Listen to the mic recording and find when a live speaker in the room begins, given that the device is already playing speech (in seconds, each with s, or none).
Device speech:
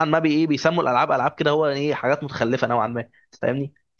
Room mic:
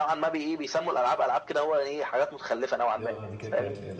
3.0 s